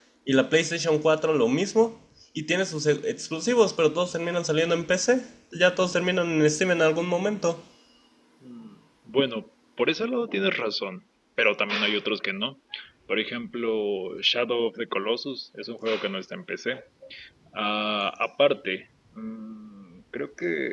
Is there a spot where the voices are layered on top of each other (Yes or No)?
No